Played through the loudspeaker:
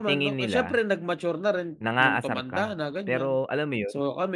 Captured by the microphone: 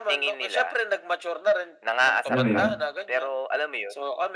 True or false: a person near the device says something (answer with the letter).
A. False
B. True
B